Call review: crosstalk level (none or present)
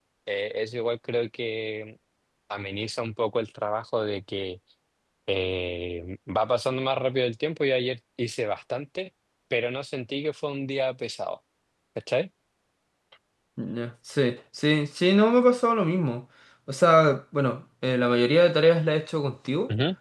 none